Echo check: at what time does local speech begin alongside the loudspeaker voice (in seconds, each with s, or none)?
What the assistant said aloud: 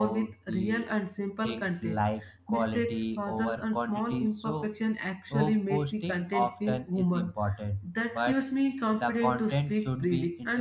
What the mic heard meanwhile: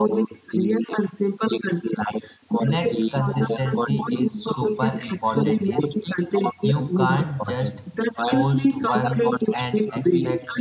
2.6 s